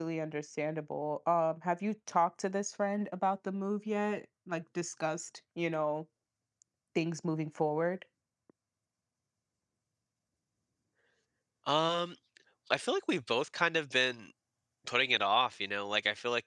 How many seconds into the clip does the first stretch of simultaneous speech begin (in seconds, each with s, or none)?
none